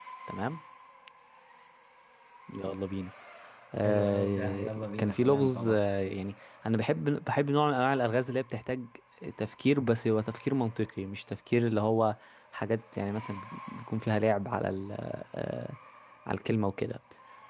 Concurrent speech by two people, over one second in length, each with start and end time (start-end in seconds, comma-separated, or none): 3.8-5.9